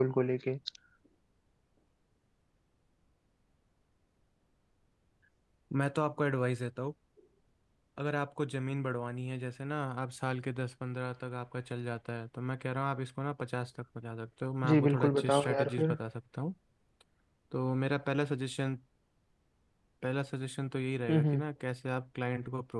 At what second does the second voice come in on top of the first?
14.7 s

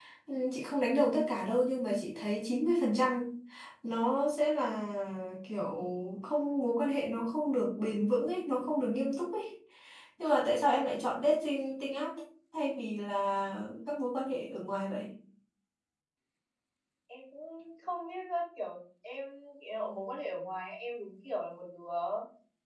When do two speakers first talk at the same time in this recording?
none

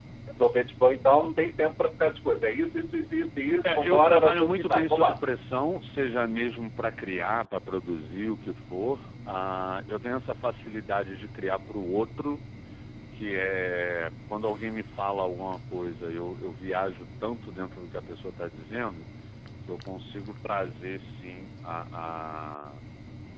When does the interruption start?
3.6 s

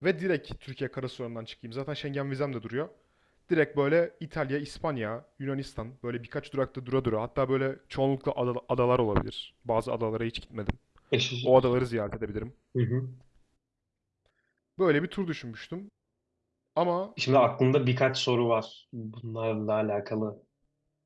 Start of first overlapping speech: none

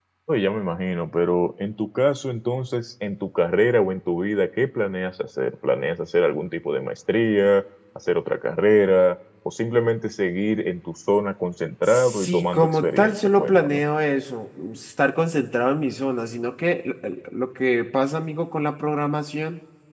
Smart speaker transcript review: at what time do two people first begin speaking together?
11.9 s

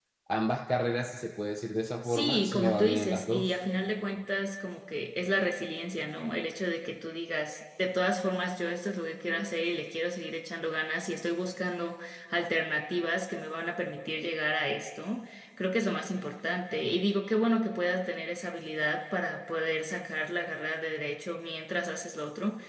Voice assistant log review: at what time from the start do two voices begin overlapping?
2.0 s

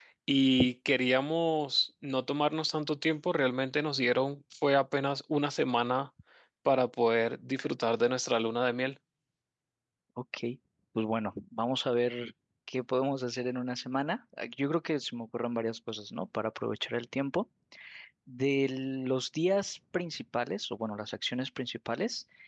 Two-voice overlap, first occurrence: none

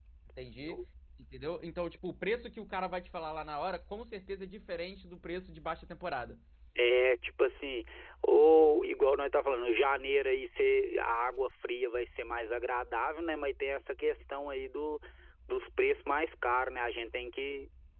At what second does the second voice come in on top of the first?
none

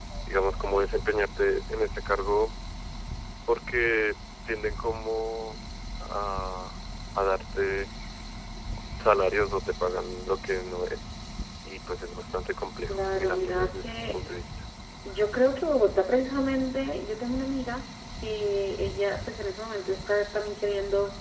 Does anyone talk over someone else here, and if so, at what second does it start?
12.9 s

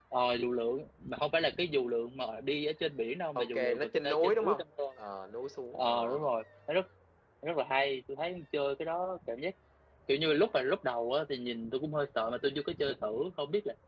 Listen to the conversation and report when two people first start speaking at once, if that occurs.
3.4 s

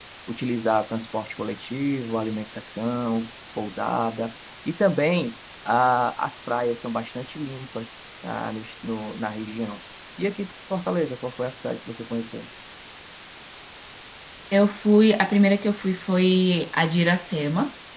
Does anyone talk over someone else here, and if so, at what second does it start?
none

